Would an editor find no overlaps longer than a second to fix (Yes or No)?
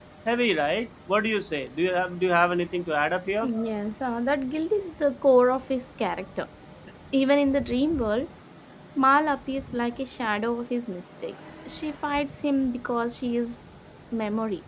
Yes